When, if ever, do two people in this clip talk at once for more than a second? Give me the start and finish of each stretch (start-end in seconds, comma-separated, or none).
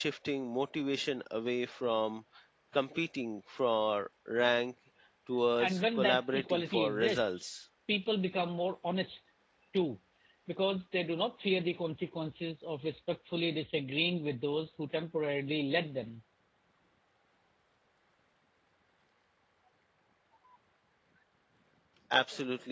5.6-7.5